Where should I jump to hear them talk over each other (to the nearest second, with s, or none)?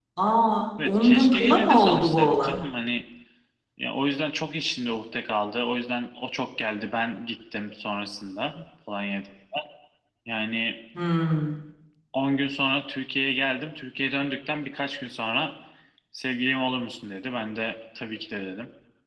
1 s